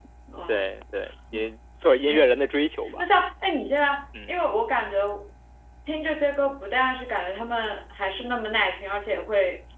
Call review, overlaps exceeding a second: none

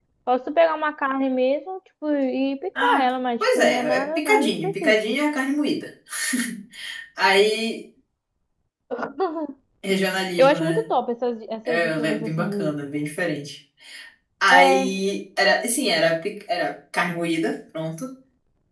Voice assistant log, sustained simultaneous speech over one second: present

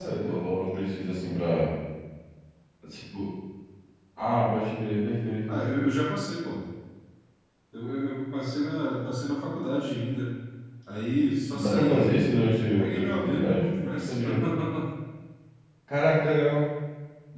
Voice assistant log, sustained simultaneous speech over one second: present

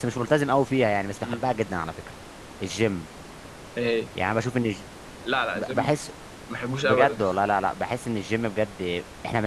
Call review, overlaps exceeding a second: none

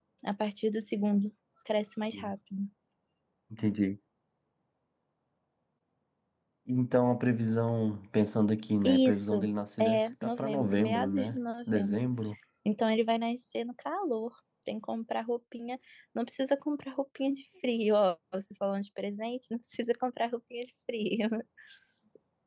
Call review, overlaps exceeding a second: present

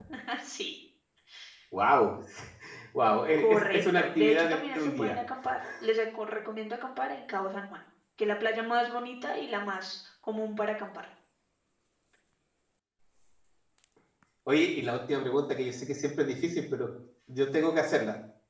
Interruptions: present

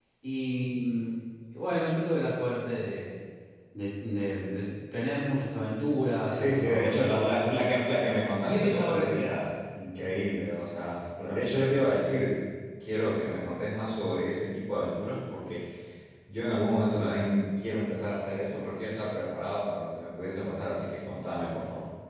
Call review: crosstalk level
present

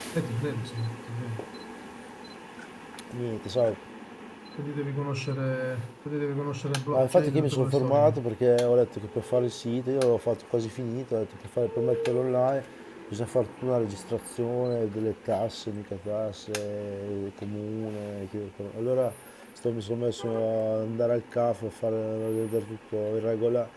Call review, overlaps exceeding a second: present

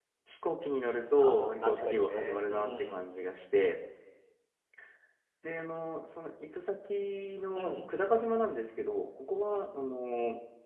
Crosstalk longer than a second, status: present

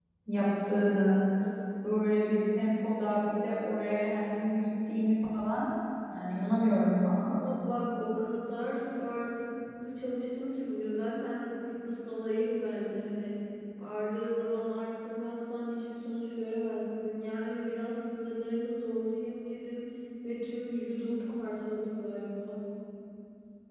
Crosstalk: none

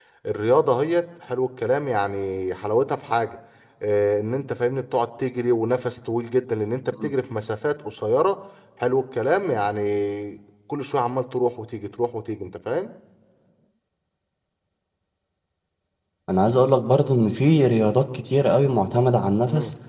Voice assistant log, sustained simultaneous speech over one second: none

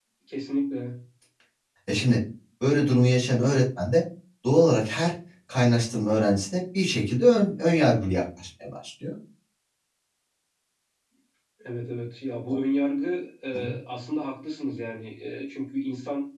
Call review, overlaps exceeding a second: none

